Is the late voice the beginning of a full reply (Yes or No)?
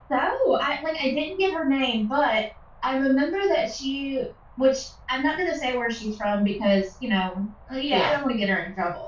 No